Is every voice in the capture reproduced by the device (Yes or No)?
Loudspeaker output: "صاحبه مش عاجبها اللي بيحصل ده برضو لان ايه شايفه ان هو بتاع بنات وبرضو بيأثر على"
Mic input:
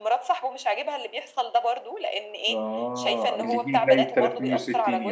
No